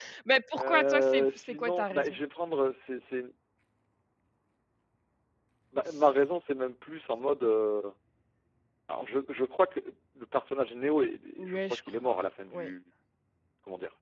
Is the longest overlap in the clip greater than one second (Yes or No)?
Yes